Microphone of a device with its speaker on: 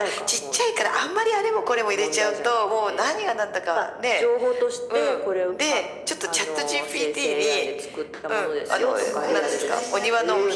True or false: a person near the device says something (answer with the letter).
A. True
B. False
A